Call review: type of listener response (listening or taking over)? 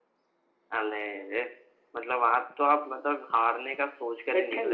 listening